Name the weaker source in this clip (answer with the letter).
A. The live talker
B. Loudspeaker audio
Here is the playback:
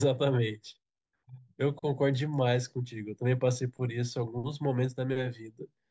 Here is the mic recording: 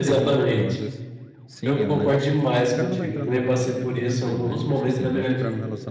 A